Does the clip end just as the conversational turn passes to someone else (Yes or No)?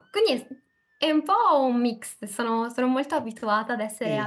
Yes